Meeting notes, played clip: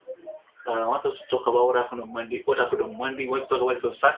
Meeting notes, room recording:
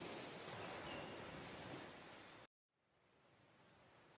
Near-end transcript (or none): none